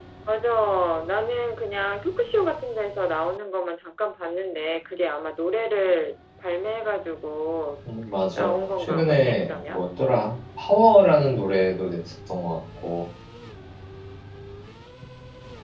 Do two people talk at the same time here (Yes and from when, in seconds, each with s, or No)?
Yes, from 8.3 s